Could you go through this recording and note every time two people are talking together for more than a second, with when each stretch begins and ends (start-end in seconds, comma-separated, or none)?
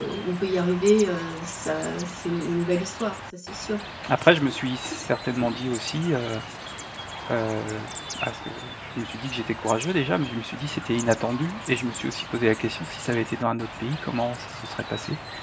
none